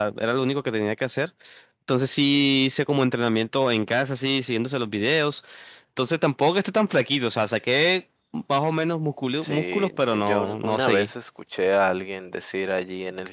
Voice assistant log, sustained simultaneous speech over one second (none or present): present